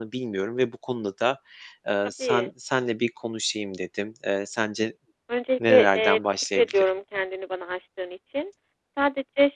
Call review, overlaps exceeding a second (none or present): present